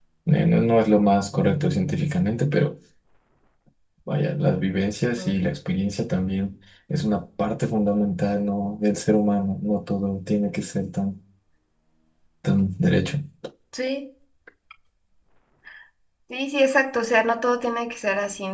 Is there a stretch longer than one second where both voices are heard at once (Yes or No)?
No